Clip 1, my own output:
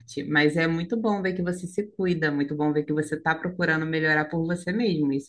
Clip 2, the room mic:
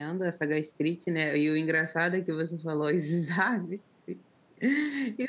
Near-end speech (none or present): present